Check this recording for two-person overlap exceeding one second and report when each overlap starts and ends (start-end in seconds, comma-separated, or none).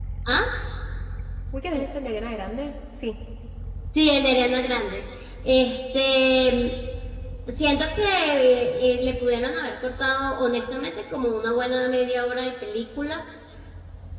none